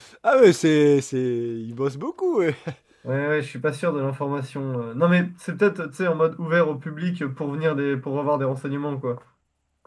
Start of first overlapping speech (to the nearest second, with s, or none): none